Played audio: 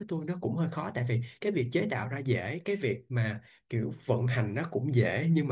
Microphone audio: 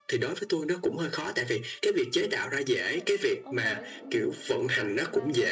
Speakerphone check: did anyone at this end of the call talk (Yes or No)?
Yes